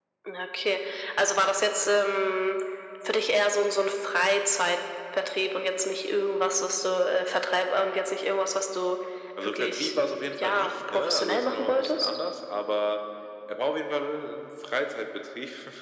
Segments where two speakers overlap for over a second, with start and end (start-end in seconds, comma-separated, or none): 9.4-12.1